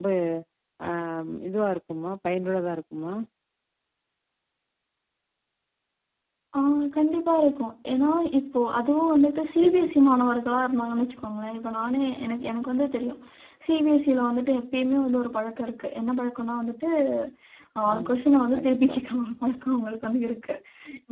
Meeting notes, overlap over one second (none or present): none